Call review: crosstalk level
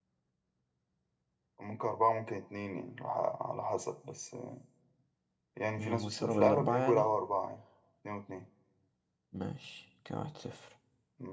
present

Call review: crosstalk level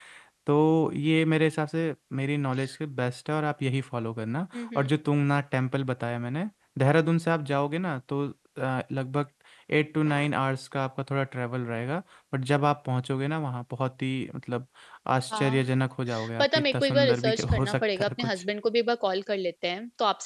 present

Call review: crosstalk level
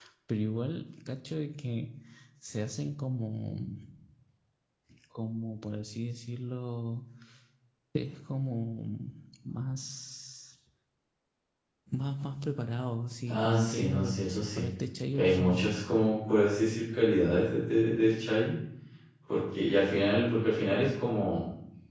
present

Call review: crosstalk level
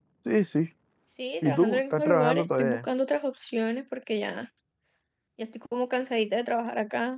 present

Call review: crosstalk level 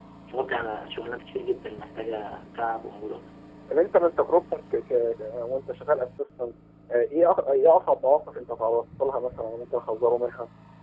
none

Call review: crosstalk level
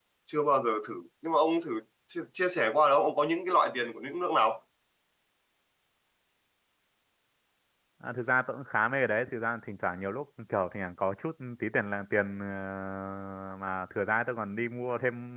none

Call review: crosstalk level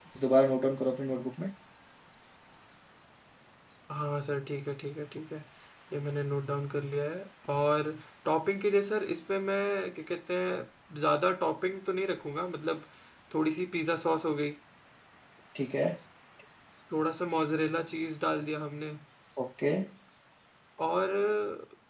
none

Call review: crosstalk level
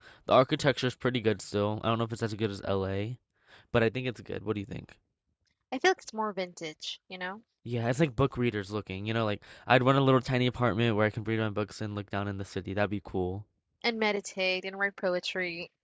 none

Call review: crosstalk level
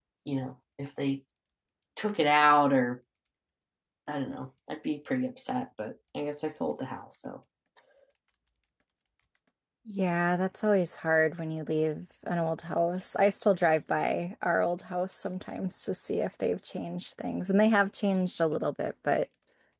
none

